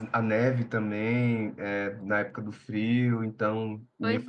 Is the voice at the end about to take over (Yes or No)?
No